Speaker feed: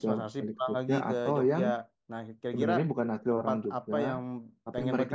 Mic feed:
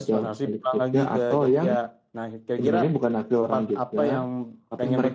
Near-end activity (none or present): none